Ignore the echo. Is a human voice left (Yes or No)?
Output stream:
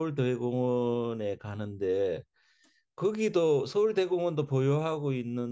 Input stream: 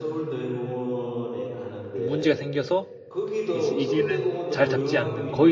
Yes